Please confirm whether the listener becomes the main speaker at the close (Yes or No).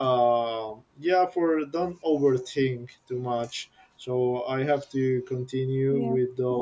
No